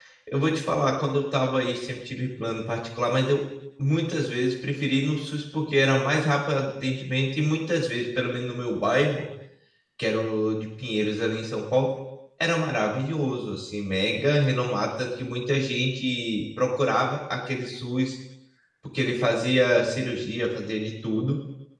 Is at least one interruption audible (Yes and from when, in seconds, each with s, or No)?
No